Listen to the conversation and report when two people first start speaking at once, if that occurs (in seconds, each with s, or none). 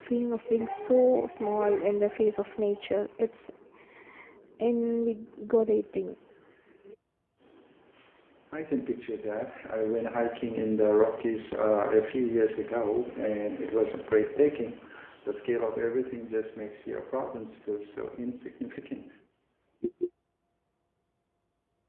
none